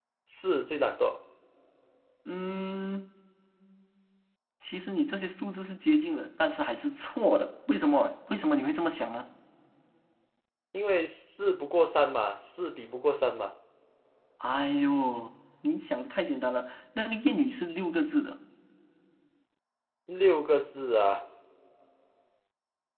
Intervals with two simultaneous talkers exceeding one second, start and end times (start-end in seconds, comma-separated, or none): none